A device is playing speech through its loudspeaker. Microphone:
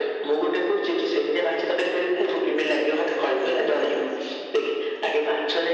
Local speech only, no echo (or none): none